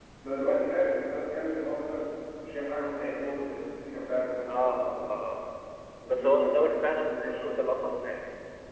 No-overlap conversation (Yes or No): No